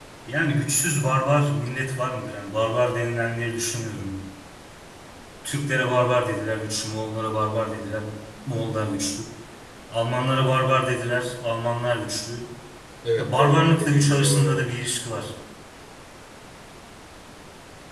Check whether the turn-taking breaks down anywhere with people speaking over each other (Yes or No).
Yes